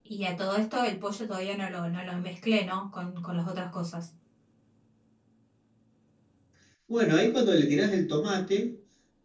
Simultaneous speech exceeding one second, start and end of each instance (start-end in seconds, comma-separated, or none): none